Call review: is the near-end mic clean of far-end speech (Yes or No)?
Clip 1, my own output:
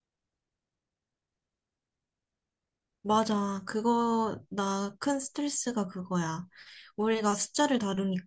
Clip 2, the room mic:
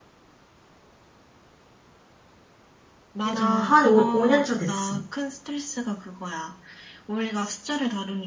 No